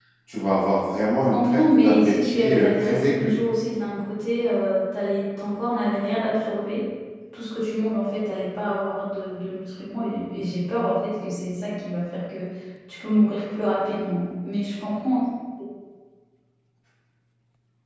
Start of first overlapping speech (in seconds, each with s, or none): 1.3 s